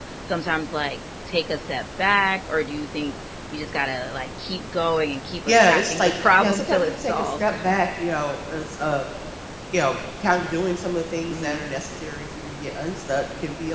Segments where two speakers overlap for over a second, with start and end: 5.5-7.5

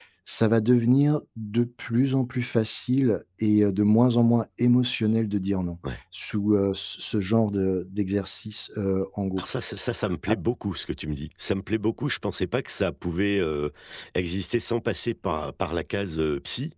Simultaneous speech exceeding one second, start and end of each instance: none

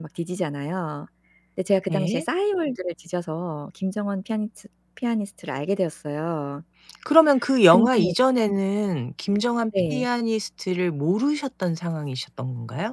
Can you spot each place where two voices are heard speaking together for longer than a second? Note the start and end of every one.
none

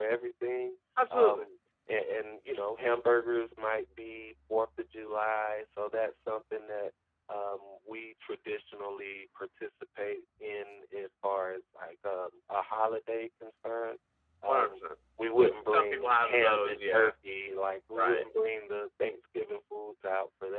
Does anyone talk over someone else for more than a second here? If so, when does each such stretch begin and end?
15.7-17.1

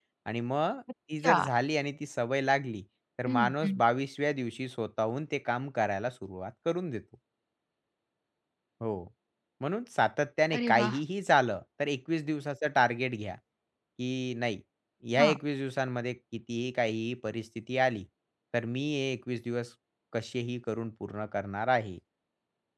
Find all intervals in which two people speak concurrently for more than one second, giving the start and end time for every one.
none

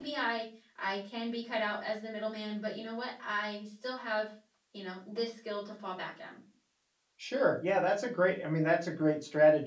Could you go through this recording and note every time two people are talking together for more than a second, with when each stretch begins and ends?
none

